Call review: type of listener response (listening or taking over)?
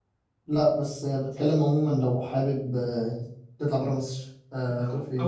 taking over